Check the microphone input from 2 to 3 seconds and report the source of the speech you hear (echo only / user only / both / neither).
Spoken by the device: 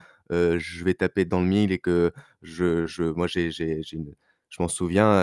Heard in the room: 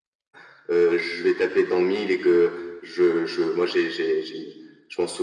echo only